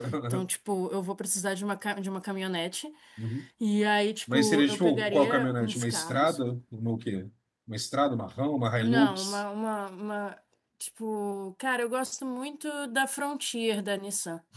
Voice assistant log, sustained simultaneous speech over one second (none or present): present